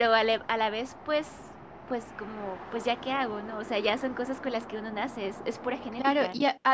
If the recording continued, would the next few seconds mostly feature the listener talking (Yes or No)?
Yes